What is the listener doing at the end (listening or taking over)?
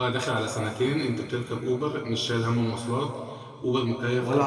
taking over